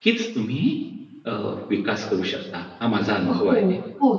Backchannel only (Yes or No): No